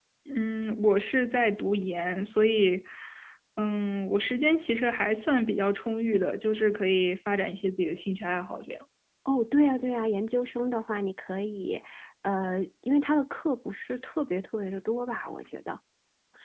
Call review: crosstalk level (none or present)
none